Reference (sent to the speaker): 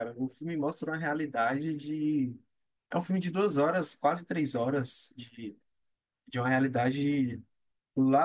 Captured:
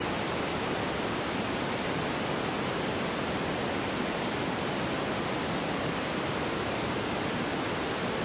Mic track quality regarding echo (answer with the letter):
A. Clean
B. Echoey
A